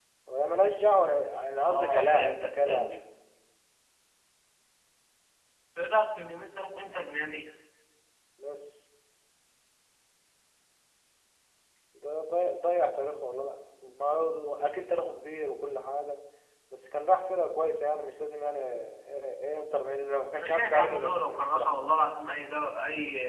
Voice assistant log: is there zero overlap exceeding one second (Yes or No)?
No